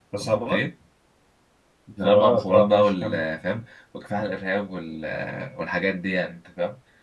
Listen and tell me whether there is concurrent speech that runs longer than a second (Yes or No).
Yes